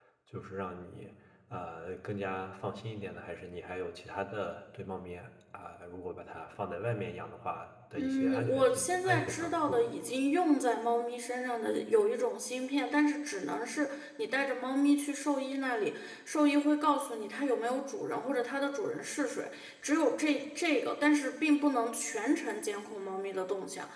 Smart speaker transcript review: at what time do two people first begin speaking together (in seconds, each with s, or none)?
8.0 s